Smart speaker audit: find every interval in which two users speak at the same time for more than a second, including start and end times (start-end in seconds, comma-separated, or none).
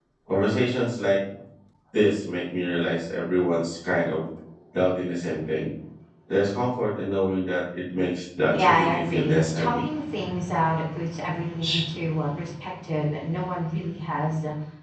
8.5-9.8